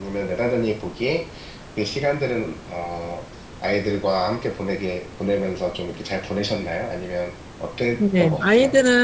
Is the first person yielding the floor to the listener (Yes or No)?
Yes